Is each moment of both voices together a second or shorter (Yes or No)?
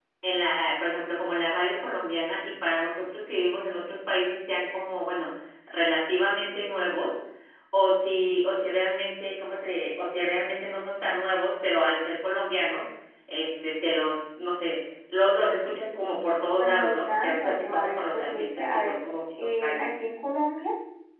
No